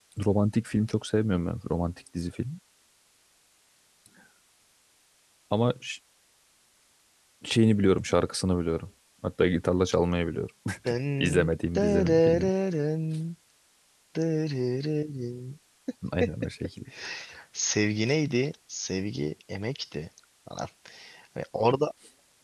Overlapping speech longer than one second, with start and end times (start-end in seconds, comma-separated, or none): 11.2-12.5